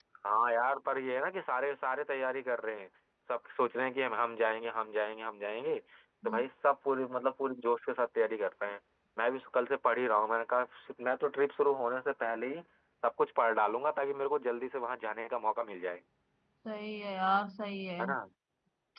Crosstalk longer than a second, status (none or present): none